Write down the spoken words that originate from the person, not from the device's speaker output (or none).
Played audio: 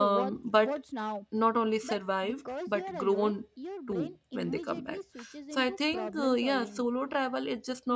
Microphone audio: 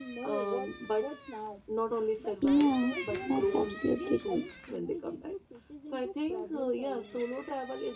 Yeah, that's absolutely right.